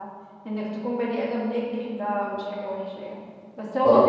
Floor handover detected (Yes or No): No